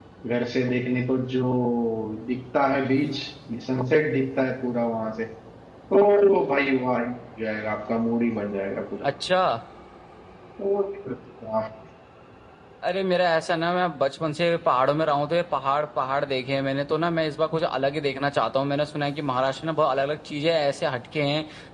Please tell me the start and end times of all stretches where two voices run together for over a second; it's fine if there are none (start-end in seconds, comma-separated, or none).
none